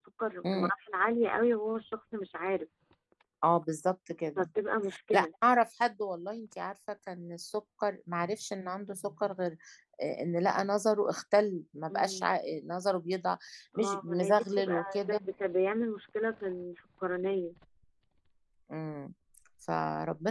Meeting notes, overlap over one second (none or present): present